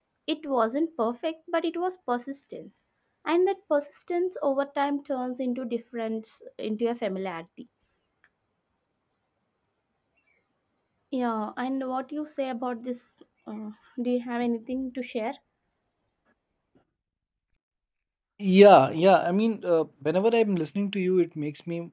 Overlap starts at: none

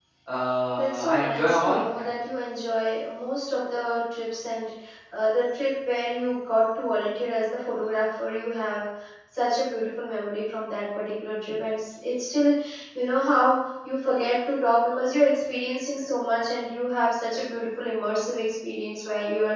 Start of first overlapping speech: 0.8 s

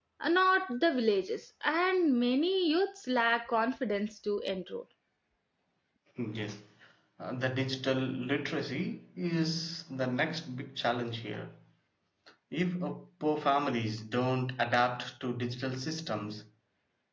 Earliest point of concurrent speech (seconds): none

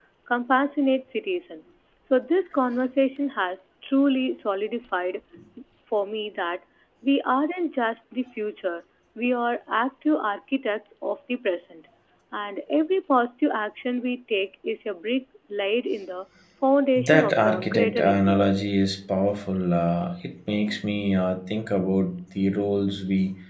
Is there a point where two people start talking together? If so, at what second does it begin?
17.0 s

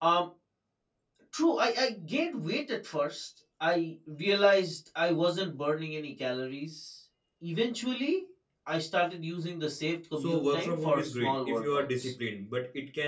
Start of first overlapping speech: 10.2 s

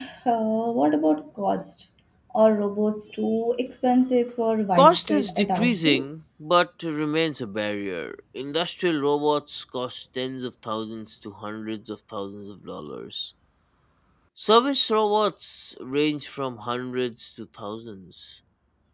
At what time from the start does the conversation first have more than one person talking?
4.8 s

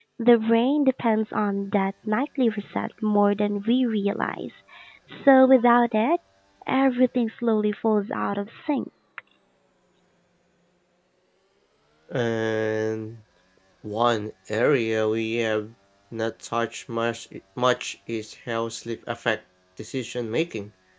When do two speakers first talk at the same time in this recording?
none

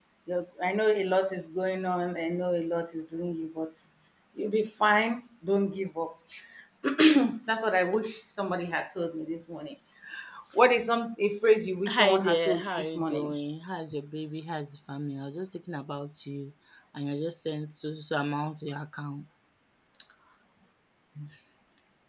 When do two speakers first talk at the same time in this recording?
11.9 s

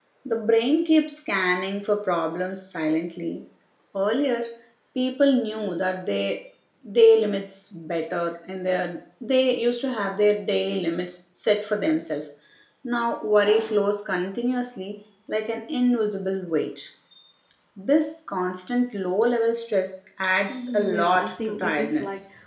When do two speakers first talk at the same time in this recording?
20.5 s

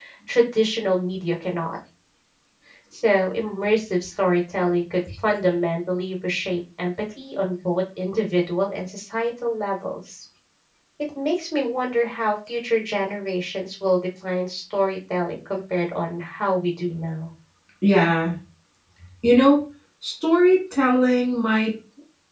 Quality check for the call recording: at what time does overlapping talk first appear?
none

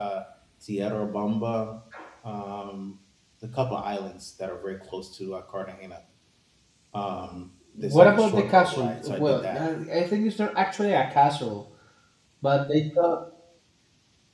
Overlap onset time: 7.8 s

